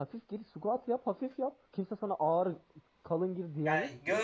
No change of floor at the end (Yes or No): No